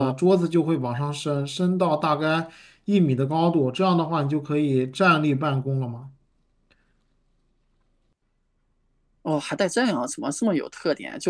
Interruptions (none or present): none